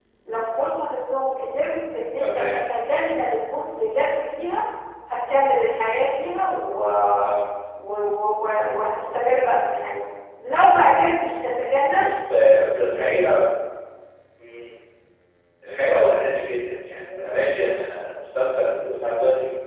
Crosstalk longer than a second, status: none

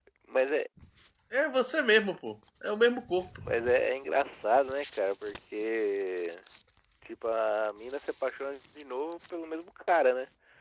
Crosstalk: none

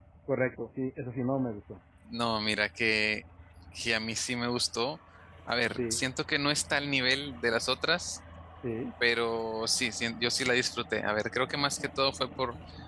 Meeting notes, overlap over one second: none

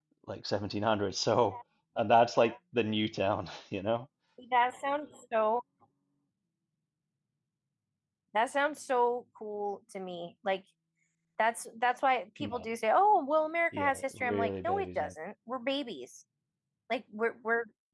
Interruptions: present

